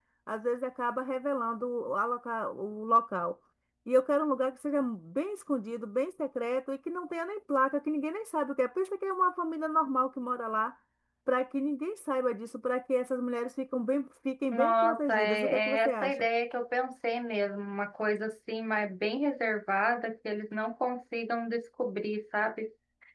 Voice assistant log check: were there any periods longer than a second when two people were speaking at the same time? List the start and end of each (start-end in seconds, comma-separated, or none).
14.5-16.1